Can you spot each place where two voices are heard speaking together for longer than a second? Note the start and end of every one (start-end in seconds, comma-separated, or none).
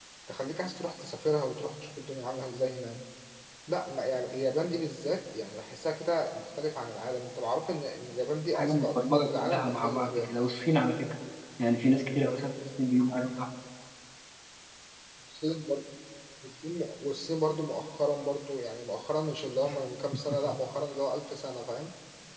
8.5-10.4